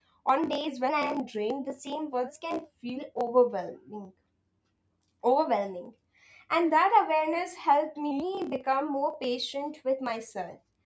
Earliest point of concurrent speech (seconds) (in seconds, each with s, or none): none